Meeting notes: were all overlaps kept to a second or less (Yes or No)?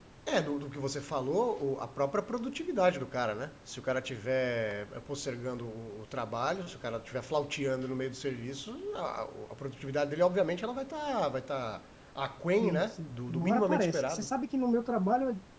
No